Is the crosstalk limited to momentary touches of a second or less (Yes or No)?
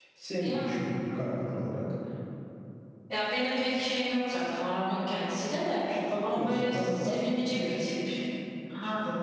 No